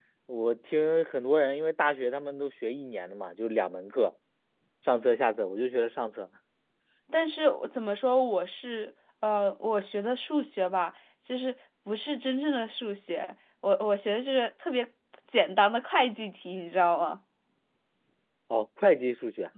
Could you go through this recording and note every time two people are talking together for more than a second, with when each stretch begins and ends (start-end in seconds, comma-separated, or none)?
none